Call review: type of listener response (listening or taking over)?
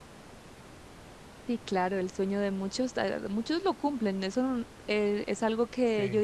listening